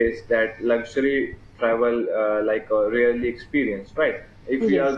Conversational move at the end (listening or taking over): listening